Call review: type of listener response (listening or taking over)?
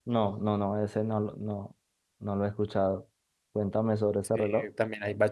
taking over